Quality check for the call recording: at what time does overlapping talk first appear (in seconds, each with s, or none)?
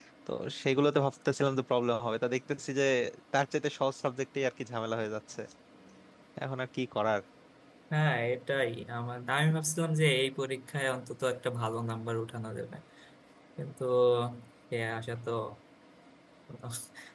none